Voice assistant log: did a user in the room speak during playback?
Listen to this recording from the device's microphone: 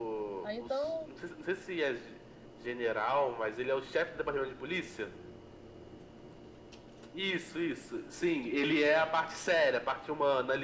Yes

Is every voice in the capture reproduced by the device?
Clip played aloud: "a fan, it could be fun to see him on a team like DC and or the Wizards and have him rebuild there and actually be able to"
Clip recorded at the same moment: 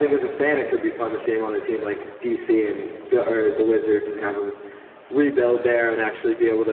Yes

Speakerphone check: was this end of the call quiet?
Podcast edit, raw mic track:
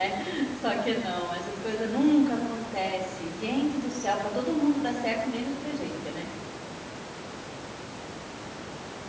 No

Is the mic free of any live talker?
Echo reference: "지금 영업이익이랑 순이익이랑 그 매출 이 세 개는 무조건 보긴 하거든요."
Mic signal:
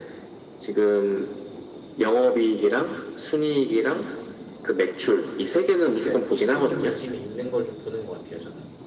No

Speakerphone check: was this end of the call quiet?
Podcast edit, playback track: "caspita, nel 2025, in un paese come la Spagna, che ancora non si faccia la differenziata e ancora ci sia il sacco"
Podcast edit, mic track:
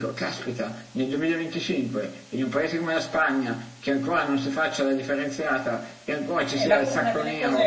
No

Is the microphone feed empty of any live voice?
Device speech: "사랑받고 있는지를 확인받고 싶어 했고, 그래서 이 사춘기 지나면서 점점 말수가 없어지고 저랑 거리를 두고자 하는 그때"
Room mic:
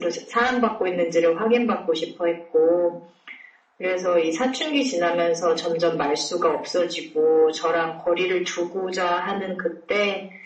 Yes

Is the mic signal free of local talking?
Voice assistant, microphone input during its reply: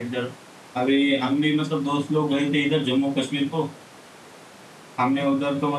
No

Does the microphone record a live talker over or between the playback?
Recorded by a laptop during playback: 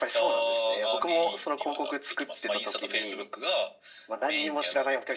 No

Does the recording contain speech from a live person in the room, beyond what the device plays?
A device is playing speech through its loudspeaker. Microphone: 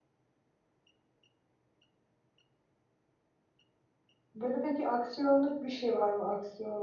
Yes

